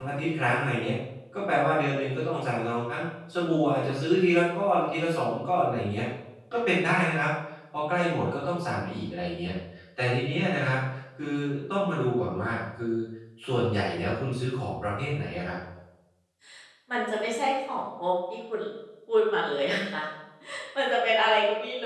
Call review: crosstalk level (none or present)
none